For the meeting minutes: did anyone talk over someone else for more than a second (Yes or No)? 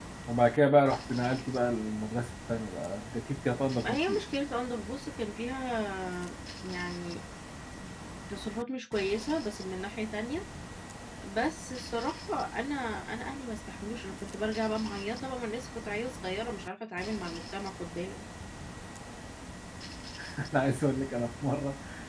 No